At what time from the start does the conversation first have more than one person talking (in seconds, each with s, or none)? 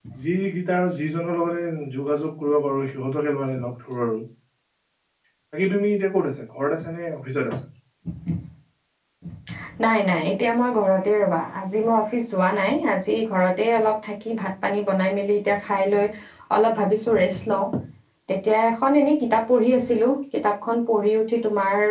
none